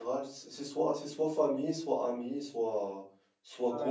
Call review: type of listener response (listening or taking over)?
taking over